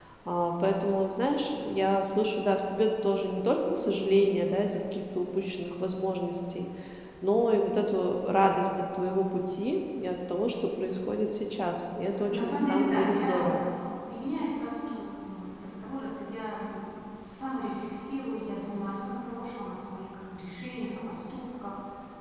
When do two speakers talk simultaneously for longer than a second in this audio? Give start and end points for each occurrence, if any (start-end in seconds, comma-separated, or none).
12.3-13.5